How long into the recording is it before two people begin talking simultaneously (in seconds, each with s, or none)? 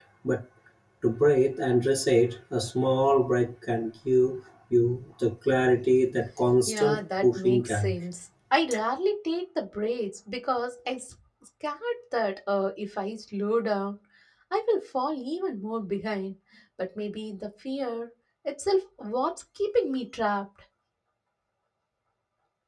6.7 s